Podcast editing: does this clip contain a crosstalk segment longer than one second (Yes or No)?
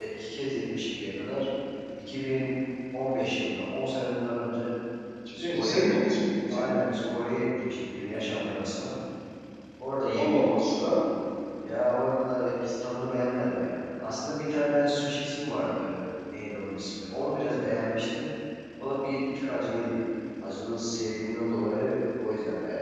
No